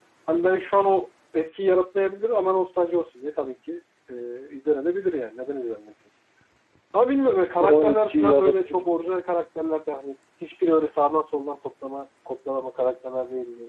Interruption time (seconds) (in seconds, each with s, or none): 7.6 s